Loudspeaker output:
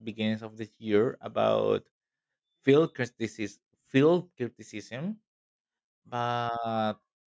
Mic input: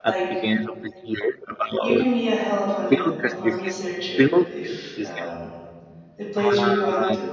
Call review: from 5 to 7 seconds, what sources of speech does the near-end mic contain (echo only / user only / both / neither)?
both